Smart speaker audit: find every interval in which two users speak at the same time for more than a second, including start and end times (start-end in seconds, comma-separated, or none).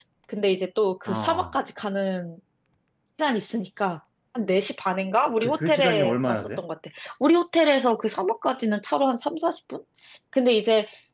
5.4-6.6